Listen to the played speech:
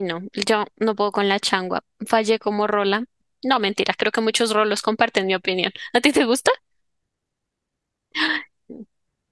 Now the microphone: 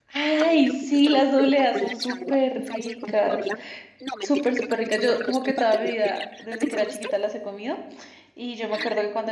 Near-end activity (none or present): present